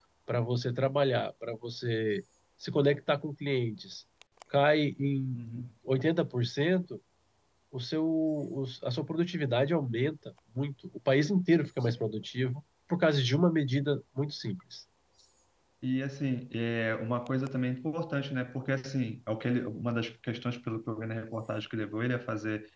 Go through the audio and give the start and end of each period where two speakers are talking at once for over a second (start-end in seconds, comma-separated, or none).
none